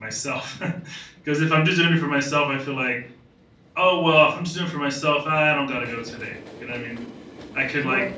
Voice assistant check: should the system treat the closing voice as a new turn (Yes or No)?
No